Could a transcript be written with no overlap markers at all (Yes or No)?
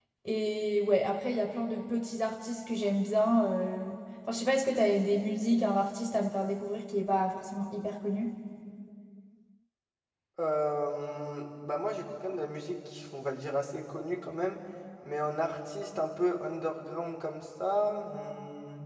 Yes